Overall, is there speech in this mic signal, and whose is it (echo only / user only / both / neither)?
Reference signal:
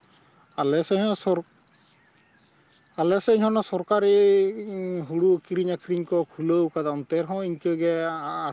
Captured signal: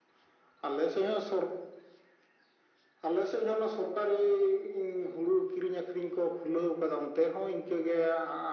echo only